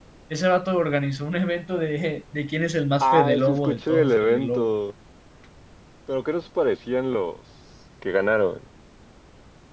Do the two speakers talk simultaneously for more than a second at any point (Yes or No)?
Yes